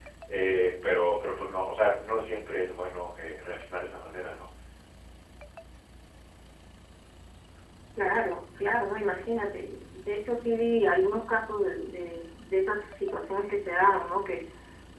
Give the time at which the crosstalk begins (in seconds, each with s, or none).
none